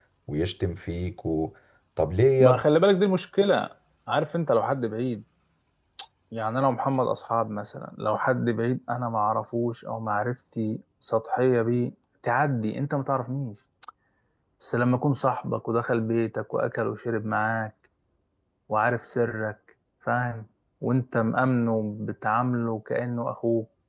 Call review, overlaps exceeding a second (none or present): none